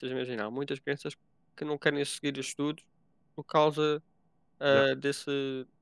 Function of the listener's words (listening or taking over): listening